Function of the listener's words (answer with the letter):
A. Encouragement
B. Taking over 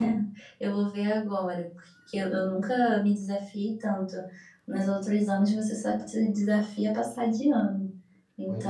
A